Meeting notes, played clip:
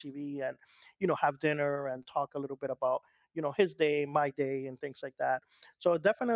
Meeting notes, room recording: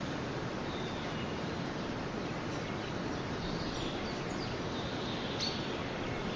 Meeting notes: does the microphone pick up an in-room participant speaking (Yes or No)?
No